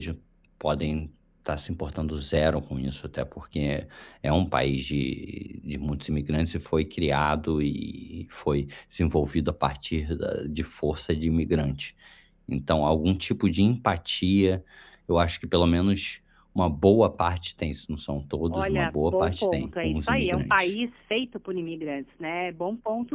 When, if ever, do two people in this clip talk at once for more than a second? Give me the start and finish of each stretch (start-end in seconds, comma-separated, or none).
18.5-20.7